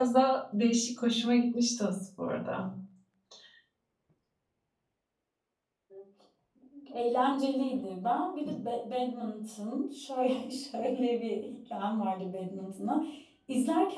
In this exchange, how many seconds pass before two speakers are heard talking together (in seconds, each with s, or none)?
none